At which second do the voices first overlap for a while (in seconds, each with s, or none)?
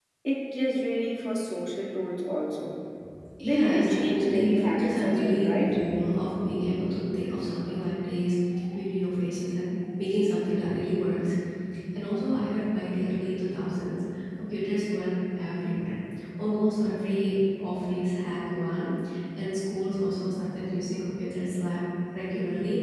3.4 s